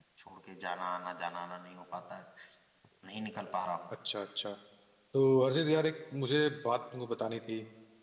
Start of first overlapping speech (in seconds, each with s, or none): none